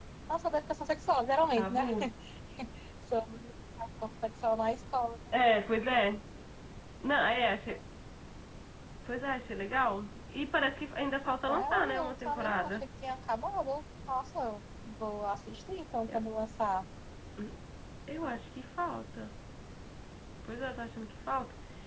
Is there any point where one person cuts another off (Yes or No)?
Yes